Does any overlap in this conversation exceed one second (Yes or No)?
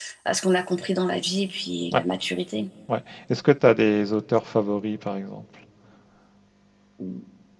No